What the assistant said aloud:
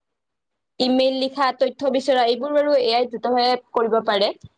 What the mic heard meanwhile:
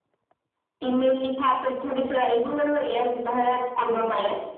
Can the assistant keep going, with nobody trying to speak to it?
Yes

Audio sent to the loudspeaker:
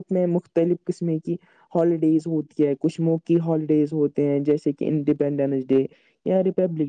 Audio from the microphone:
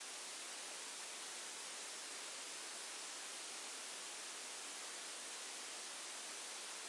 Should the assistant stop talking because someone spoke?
No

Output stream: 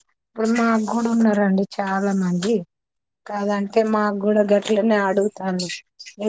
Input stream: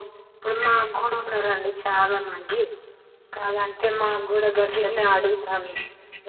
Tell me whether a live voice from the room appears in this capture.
No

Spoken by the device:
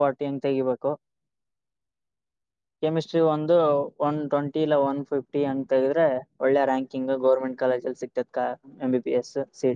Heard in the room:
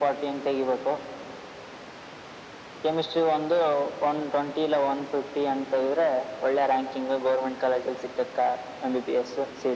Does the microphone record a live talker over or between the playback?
No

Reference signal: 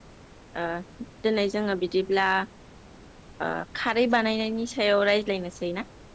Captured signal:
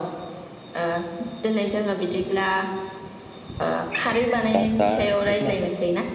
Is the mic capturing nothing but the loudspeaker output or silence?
No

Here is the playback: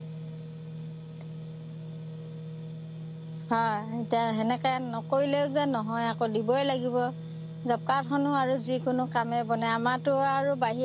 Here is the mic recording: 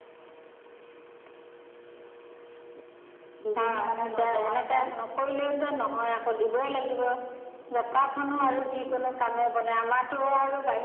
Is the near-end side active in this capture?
Yes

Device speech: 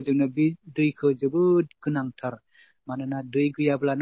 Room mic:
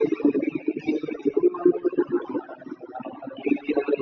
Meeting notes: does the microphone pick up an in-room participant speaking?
No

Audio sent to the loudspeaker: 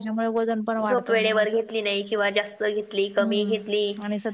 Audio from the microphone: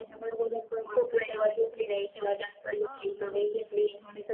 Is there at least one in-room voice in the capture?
Yes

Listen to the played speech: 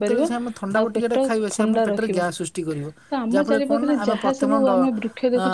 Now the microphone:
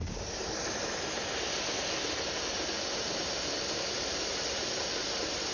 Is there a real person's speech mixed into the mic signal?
No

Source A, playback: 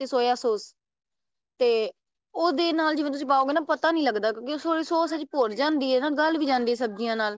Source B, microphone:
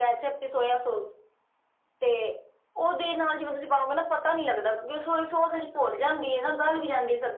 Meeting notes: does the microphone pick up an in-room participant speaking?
No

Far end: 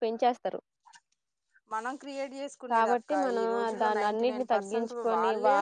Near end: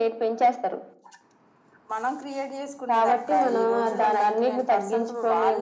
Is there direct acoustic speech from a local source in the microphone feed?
No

